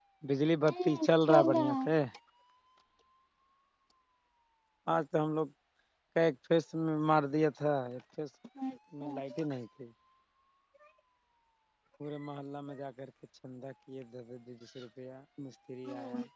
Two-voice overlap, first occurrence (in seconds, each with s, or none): 0.6 s